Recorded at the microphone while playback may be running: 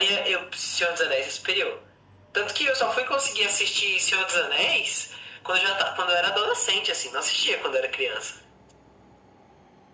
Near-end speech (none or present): none